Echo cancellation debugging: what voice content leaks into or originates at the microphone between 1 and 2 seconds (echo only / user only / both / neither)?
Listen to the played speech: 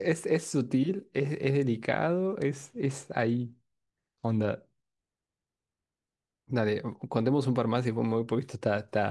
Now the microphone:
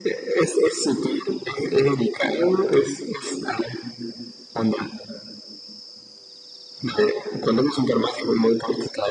echo only